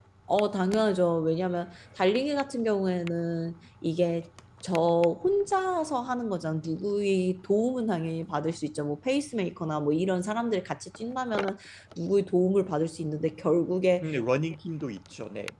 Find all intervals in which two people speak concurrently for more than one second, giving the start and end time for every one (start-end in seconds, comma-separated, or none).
none